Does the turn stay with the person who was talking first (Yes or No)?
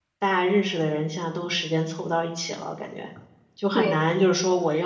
Yes